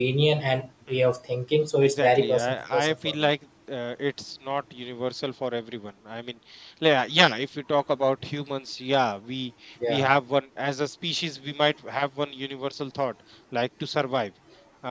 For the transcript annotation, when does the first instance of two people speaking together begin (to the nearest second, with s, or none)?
2 s